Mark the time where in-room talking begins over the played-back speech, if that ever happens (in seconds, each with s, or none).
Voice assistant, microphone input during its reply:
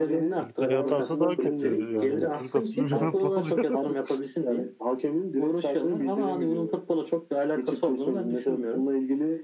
0.4 s